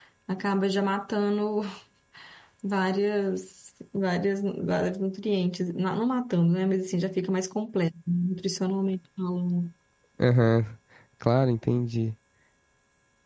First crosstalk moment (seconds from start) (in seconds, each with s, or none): none